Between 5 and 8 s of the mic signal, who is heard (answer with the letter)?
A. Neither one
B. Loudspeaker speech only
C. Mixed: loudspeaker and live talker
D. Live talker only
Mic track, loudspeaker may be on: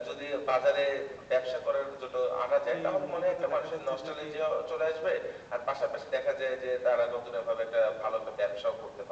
B